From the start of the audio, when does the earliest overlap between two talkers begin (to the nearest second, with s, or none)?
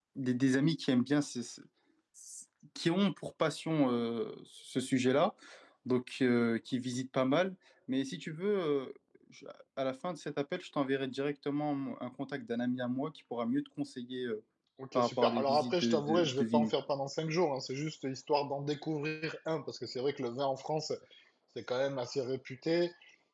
15 s